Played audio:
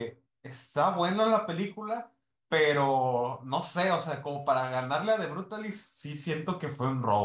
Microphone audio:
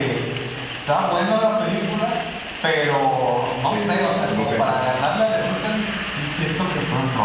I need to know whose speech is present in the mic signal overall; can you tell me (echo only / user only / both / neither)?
both